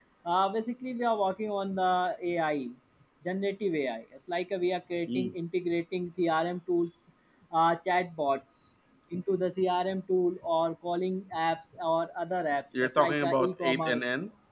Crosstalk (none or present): present